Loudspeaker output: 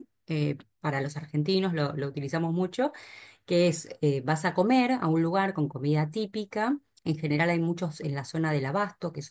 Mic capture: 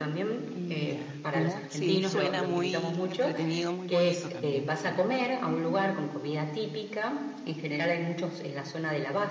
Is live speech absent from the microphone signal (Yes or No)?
No